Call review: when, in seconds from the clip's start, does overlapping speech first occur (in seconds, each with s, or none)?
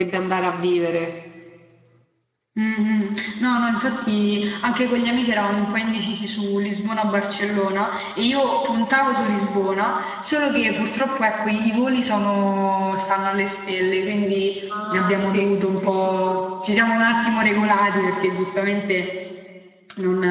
14.9 s